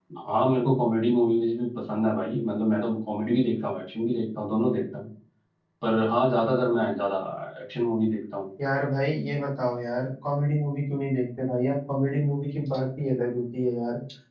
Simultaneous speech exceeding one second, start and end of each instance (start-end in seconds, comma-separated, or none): none